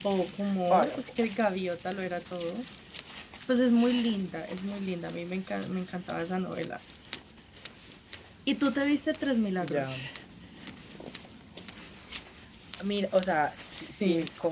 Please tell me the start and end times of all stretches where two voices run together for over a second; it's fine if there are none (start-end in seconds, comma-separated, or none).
none